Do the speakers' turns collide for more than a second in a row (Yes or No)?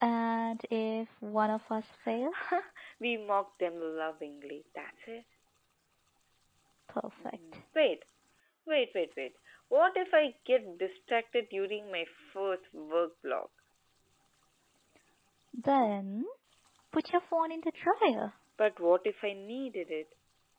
No